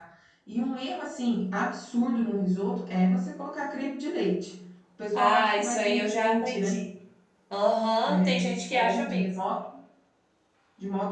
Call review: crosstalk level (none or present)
present